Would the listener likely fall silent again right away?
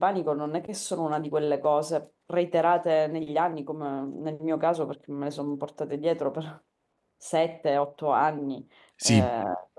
Yes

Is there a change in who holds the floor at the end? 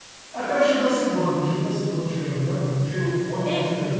Yes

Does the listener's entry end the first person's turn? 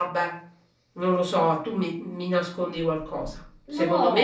No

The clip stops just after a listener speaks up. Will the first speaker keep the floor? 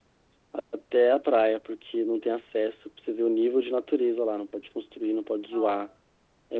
Yes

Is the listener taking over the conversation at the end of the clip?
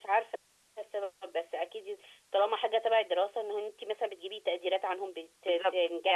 Yes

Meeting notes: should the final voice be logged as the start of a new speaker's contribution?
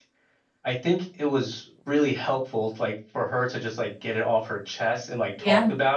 No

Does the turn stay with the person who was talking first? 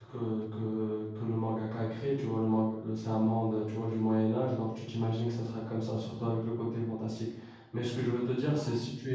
Yes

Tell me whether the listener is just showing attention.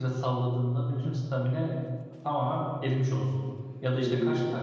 Yes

